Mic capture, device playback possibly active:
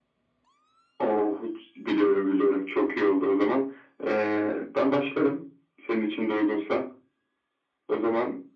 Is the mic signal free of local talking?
Yes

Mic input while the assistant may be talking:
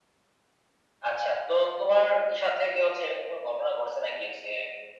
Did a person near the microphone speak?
No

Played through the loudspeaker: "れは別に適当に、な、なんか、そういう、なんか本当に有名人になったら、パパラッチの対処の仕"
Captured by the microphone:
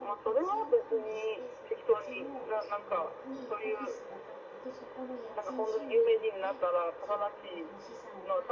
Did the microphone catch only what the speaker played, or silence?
No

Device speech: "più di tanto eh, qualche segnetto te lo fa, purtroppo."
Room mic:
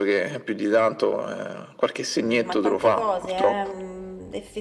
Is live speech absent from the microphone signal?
No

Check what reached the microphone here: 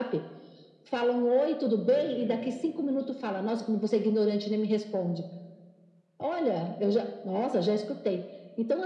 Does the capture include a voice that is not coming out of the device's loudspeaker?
Yes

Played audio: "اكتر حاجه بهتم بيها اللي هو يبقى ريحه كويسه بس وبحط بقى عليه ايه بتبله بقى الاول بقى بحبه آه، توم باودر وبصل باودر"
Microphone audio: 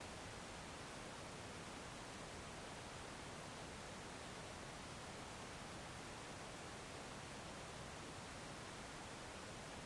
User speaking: No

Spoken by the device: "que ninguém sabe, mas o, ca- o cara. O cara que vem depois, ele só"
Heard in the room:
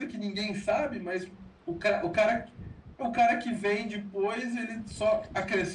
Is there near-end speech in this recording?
No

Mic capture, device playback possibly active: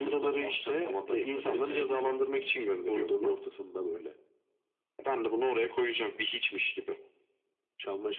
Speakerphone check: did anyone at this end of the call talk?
No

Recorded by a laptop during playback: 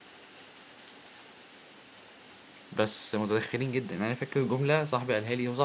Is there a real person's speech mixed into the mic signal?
Yes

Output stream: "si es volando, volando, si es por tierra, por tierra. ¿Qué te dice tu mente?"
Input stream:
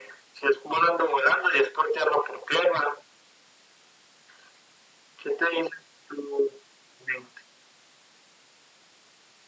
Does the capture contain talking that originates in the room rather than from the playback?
No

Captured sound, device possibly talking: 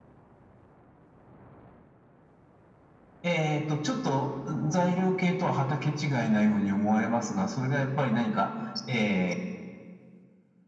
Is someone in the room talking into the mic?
No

